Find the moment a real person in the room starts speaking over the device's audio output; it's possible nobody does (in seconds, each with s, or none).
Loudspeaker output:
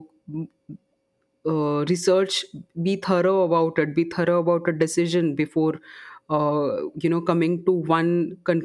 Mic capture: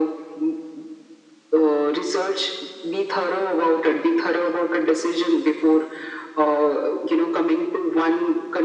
none